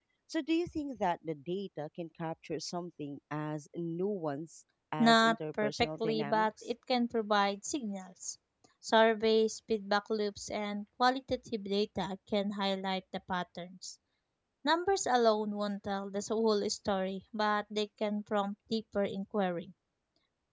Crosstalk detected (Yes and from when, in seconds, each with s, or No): Yes, from 5.0 s